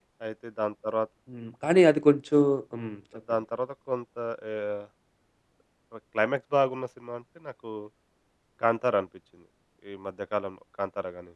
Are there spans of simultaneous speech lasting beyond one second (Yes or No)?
No